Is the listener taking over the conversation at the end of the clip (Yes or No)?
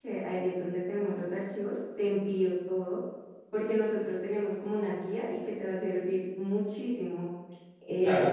Yes